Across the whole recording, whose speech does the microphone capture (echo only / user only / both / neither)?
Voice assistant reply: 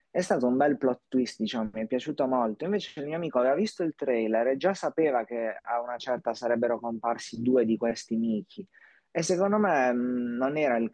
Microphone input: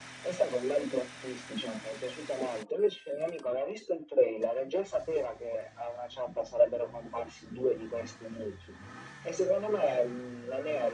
echo only